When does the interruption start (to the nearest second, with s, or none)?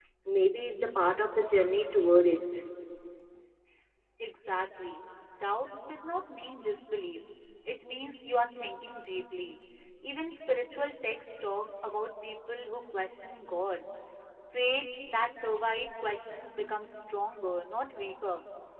none